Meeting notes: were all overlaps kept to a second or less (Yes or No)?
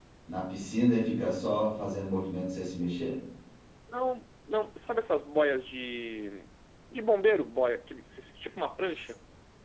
Yes